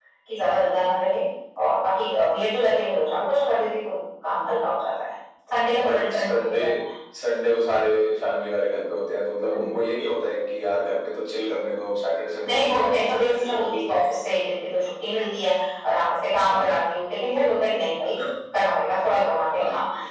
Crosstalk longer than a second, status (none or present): present